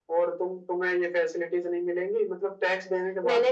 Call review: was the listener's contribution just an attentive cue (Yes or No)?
No